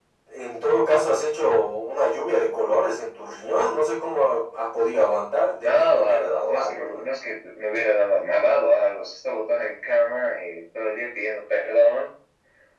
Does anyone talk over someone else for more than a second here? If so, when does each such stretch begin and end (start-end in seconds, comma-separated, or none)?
5.6-7.1